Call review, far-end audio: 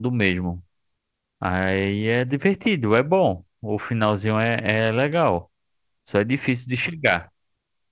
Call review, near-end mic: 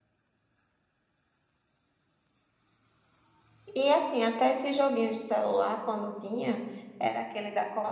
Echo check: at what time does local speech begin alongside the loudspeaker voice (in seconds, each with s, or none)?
3.8 s